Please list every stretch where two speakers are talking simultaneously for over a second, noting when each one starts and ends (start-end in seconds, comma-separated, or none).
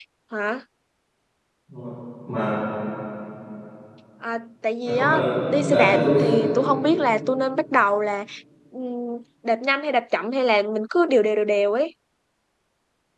4.8-6.2